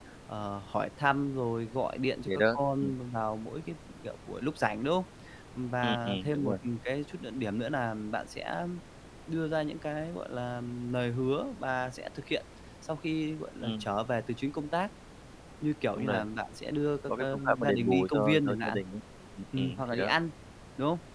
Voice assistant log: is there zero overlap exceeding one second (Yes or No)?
No